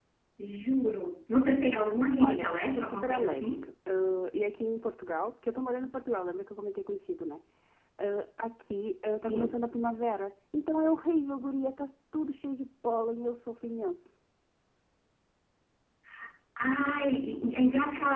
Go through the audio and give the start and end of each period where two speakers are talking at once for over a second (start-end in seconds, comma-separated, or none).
2.2-3.5